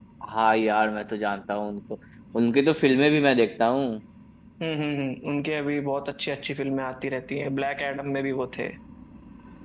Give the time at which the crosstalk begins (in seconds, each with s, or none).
none